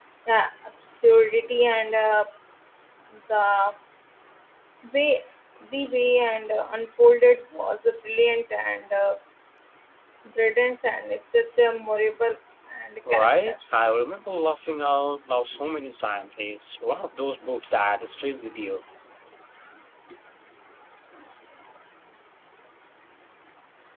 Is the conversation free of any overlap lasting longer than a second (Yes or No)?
Yes